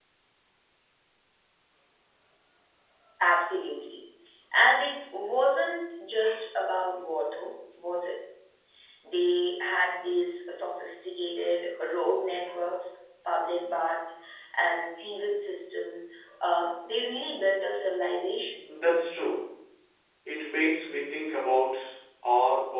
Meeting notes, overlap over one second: none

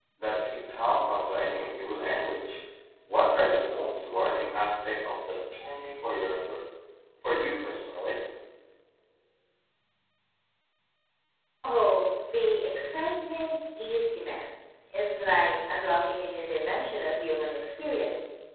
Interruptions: none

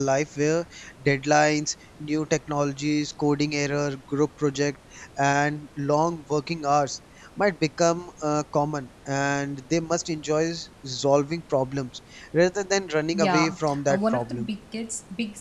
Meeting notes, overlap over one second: present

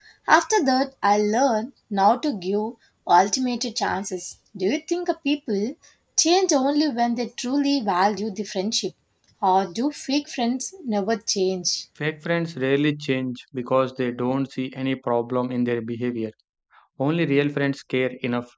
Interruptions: none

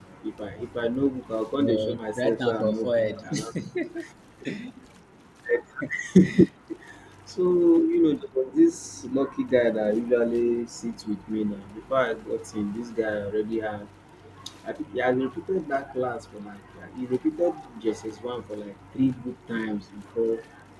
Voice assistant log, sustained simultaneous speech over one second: present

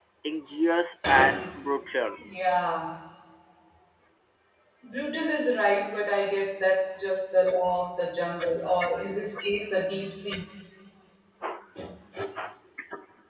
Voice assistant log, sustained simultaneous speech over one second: none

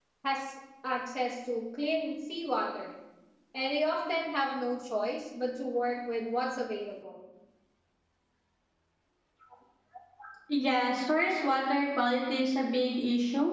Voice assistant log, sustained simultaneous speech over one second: none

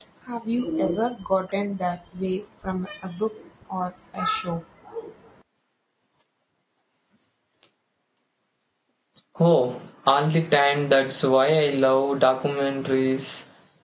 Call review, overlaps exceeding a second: none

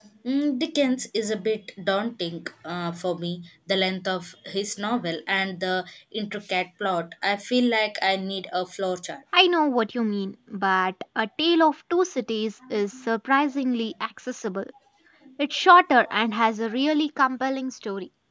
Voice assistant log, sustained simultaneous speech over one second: none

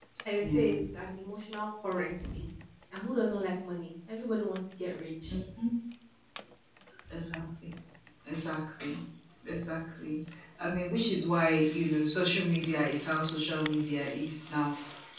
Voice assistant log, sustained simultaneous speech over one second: none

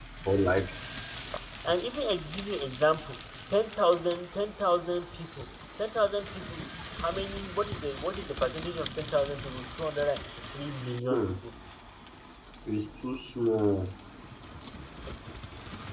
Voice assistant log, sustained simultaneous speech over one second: none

